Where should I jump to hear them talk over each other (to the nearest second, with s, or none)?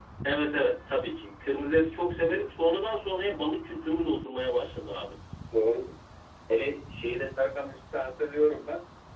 none